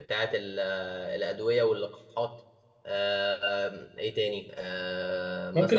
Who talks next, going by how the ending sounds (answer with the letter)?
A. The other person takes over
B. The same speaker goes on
A